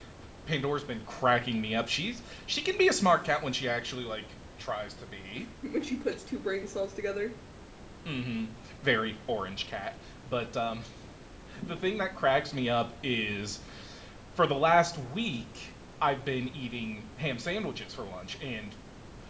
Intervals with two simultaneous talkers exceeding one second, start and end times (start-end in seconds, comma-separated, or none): none